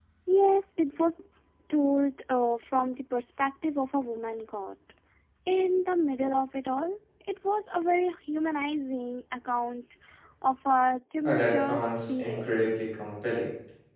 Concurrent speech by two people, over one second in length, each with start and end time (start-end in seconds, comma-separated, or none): 11.2-12.5